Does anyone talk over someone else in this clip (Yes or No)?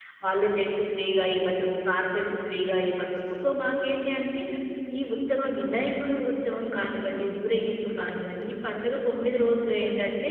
No